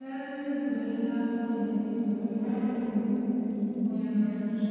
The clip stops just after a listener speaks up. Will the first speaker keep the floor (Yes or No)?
No